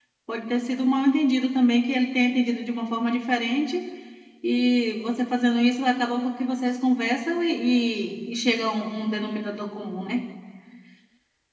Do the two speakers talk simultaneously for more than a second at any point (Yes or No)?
No